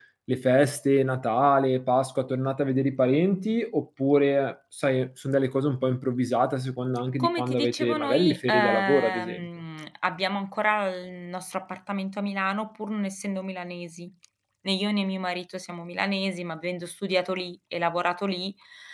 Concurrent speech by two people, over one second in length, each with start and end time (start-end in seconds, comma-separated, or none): 7.2-9.5